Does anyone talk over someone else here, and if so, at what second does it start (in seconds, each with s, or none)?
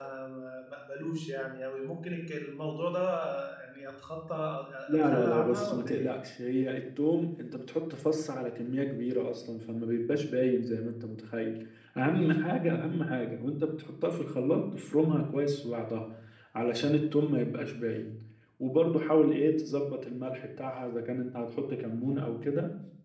4.9 s